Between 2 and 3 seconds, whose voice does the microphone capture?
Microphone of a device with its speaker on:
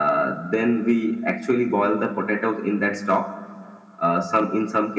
echo only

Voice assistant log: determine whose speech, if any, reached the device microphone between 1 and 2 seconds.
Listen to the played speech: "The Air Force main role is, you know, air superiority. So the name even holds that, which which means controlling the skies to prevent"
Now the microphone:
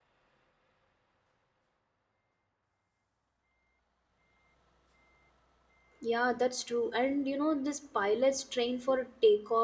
neither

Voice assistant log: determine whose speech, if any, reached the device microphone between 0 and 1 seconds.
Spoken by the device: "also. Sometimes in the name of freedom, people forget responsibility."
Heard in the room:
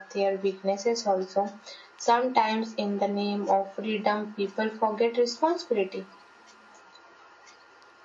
echo only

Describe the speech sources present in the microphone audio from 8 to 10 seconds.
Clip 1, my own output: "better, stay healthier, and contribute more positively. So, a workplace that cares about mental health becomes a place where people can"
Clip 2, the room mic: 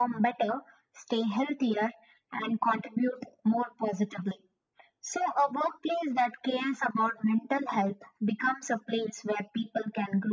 echo only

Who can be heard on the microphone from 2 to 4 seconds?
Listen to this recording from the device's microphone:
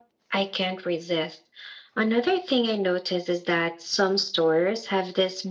echo only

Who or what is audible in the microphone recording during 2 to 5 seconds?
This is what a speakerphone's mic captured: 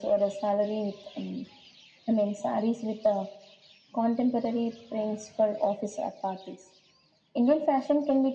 echo only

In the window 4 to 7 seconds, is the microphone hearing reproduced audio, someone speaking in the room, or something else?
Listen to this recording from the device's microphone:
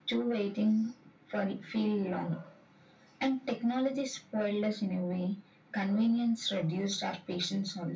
echo only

